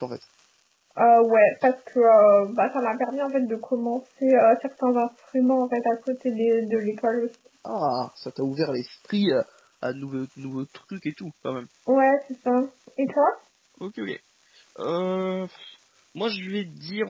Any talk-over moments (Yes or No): No